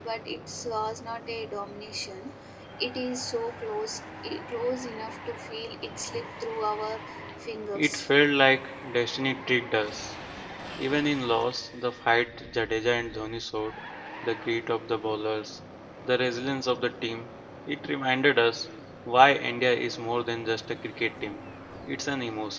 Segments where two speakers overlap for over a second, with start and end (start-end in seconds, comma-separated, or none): none